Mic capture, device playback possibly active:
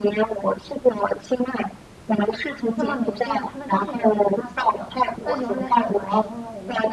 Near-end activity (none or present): present